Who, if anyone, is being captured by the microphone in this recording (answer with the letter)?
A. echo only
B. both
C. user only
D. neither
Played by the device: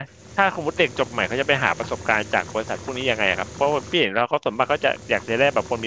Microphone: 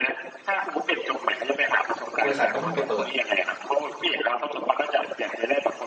B